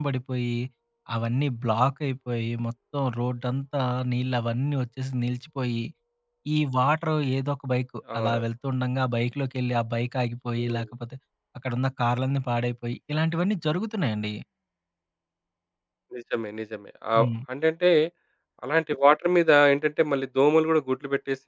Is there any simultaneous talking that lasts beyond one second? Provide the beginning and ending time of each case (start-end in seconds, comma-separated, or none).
none